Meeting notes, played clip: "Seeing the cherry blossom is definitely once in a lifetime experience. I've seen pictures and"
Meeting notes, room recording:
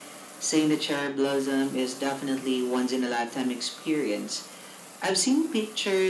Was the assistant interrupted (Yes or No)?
No